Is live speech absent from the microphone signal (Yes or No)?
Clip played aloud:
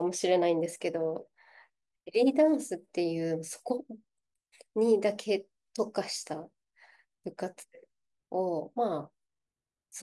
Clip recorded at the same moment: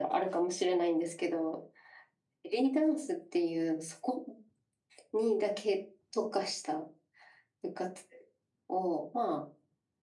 Yes